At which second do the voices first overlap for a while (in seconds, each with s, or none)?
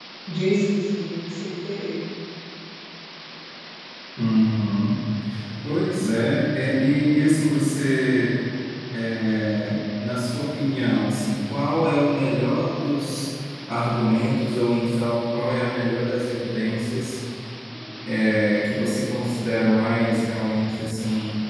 none